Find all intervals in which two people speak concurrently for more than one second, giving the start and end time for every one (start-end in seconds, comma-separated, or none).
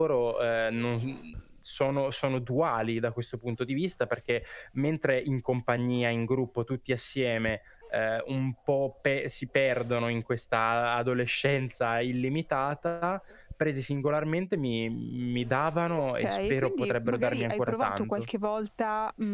16.2-18.3